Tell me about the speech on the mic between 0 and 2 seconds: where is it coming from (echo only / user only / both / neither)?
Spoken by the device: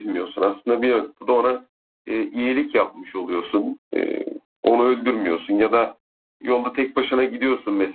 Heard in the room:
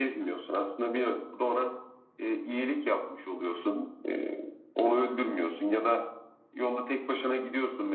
echo only